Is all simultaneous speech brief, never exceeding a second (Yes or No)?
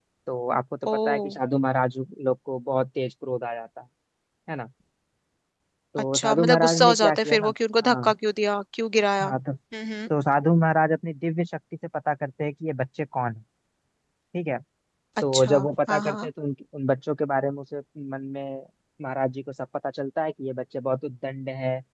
No